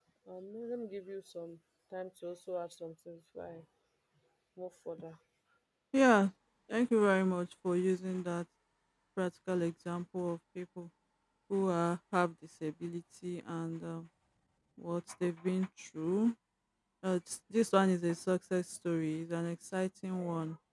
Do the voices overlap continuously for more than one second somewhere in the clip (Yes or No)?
No